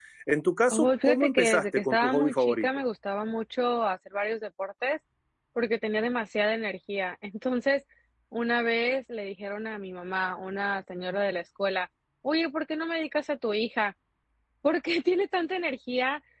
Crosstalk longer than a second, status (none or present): present